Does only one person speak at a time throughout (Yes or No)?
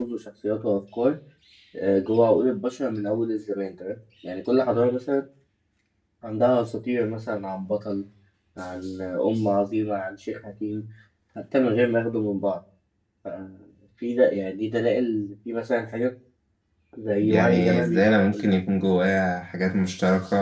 No